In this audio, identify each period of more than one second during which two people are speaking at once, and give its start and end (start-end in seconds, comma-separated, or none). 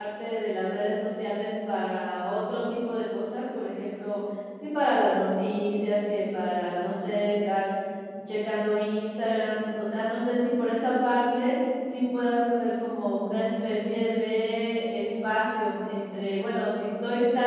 none